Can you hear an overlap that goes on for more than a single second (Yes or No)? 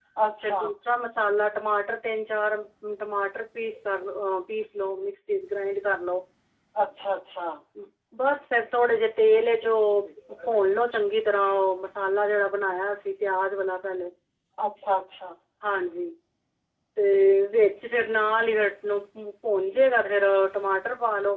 No